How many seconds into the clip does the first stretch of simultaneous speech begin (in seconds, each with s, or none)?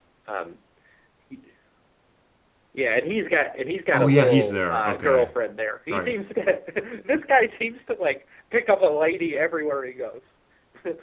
3.9 s